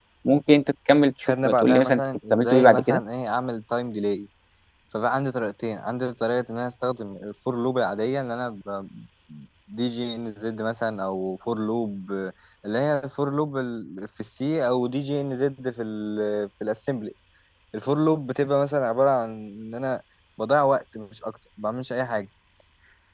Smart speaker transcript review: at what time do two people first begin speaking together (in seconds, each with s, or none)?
1.2 s